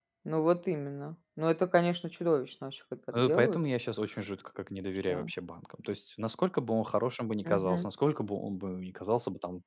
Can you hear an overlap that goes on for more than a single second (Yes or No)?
No